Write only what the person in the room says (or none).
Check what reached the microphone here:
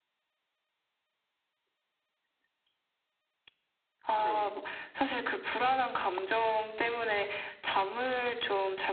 네.